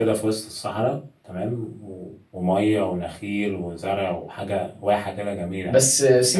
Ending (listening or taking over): taking over